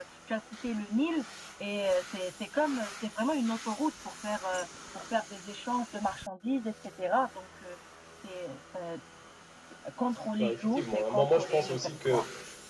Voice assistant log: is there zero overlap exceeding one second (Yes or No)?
No